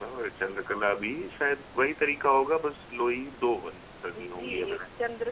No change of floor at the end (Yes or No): No